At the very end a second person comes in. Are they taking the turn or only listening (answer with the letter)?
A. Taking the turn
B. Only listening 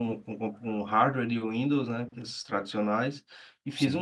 B